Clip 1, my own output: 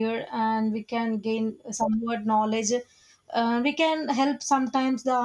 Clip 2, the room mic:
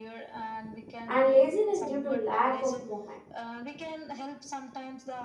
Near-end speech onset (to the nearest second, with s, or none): 1 s